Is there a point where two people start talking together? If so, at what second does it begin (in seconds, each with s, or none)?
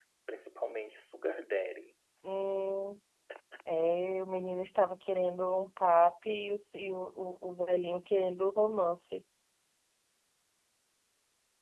none